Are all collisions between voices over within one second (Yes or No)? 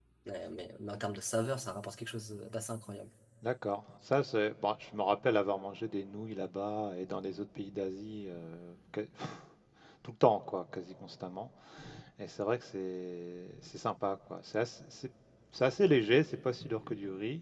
Yes